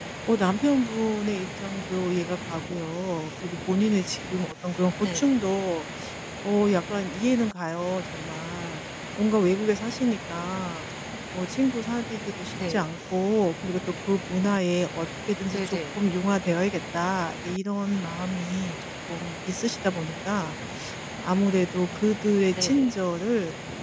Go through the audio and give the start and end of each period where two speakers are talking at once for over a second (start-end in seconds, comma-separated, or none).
none